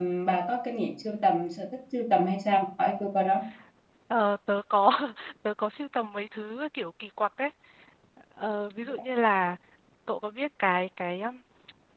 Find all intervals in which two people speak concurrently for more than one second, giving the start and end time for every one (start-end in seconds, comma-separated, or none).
none